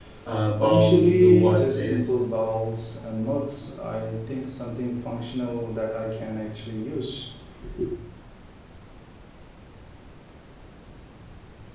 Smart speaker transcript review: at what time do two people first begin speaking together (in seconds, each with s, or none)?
0.6 s